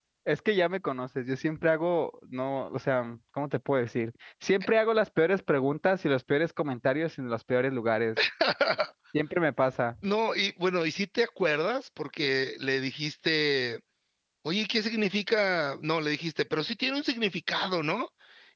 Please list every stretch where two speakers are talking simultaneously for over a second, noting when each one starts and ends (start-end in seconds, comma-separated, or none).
none